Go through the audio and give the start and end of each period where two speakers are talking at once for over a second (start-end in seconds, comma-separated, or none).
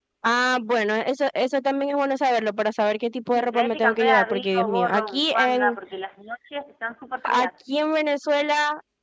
3.3-5.8